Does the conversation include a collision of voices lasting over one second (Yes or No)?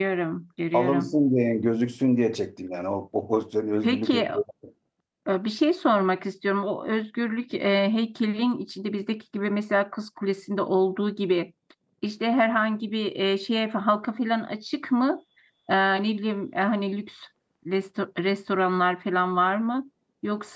No